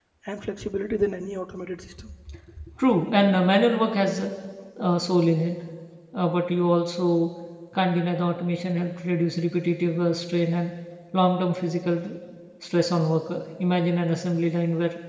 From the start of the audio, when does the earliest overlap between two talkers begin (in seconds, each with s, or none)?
none